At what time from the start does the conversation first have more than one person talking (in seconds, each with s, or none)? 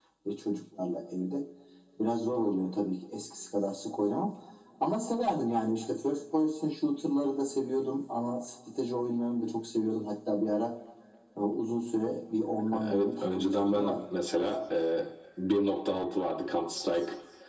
12.7 s